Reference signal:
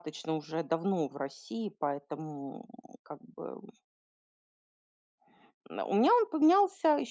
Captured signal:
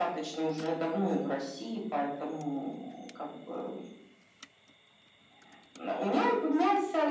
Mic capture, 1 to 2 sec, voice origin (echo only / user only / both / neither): echo only